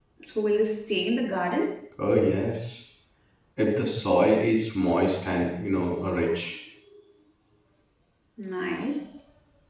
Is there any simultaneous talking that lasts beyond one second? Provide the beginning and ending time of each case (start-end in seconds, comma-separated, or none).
none